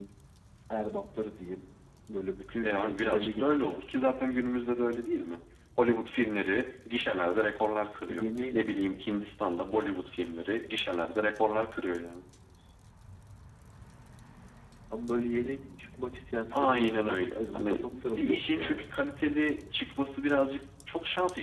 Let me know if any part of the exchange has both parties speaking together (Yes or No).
Yes